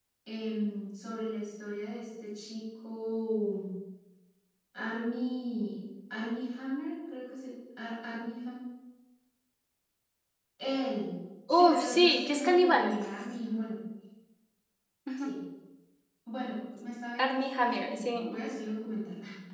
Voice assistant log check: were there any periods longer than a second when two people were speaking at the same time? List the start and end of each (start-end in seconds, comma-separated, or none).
11.5-12.9, 17.2-18.4